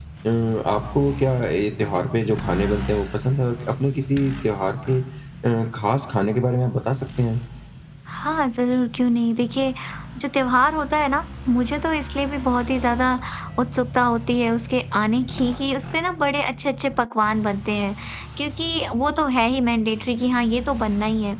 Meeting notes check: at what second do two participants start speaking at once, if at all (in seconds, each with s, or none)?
none